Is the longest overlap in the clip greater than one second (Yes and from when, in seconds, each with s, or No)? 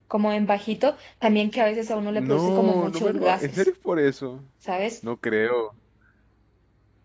Yes, from 2.1 s